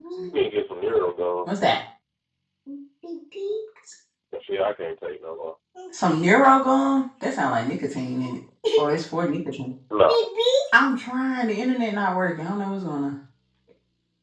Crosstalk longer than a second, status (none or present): none